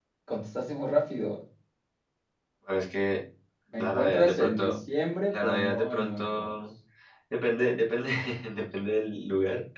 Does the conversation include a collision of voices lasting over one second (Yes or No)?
Yes